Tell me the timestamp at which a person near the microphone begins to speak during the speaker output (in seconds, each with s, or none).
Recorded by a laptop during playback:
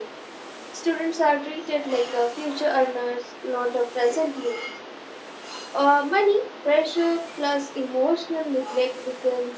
none